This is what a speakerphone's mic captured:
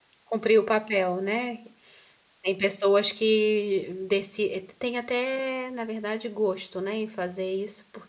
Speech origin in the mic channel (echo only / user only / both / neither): user only